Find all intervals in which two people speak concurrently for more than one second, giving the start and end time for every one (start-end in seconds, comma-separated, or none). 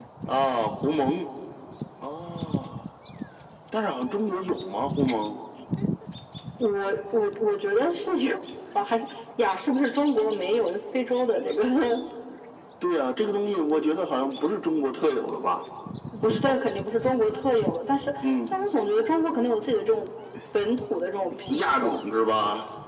none